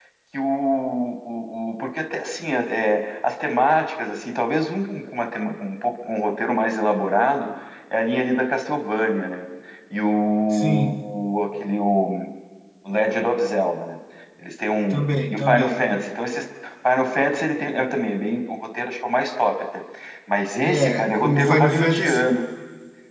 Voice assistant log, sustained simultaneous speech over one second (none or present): present